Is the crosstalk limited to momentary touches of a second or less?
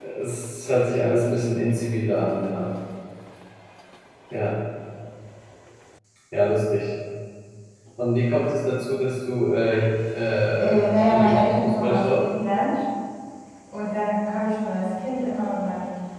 No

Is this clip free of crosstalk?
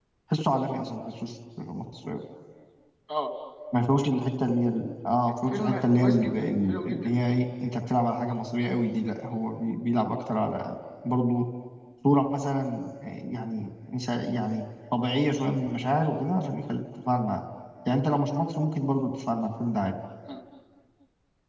No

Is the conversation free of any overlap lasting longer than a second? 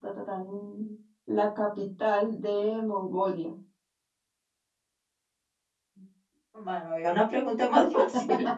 Yes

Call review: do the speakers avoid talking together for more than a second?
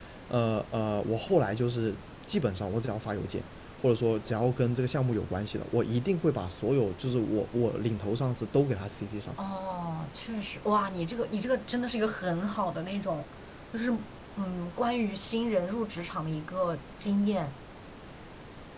Yes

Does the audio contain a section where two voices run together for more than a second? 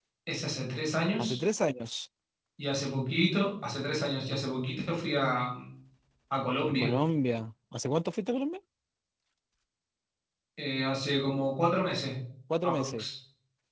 No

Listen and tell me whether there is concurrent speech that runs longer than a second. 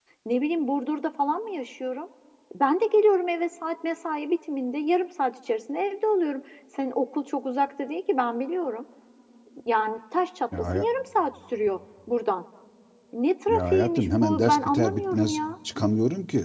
Yes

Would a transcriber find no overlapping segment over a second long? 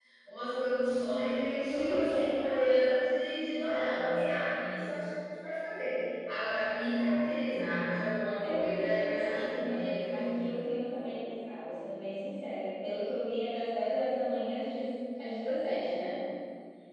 No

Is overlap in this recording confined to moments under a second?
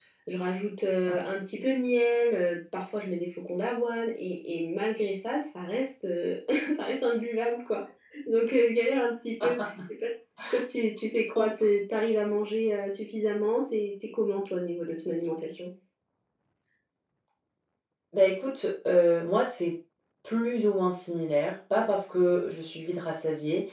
Yes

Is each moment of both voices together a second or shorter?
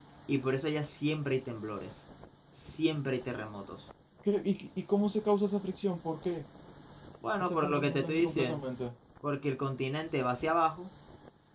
No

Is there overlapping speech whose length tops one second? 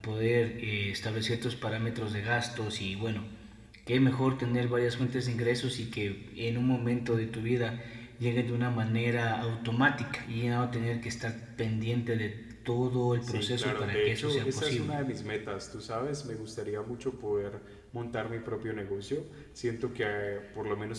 Yes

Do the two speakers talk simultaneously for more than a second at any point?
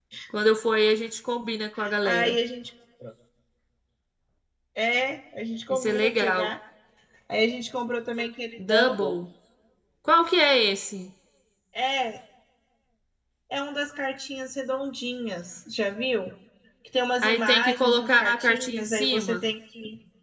Yes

